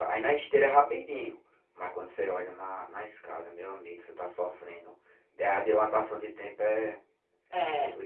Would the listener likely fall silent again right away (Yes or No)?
No